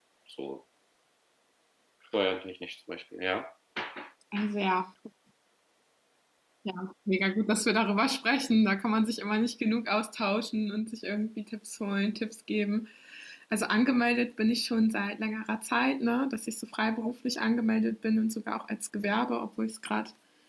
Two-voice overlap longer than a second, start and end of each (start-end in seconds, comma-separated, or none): none